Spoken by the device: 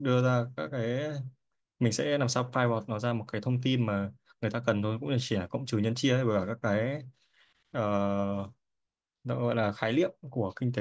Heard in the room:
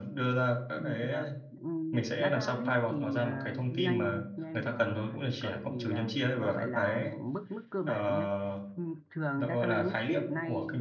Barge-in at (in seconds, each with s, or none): 0.7 s